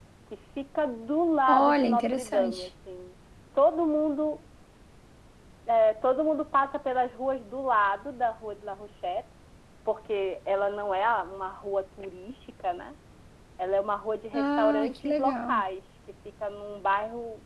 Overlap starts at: 1.5 s

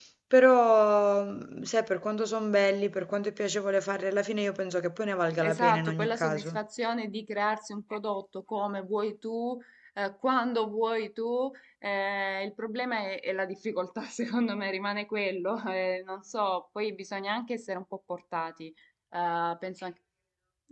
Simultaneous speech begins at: 5.4 s

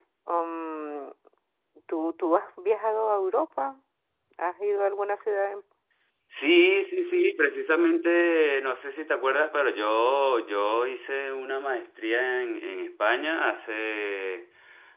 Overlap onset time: none

